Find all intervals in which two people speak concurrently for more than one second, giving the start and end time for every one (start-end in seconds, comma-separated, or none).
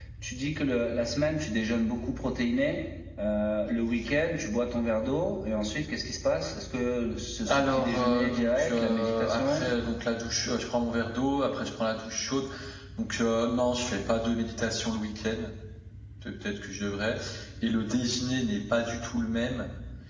7.5-9.7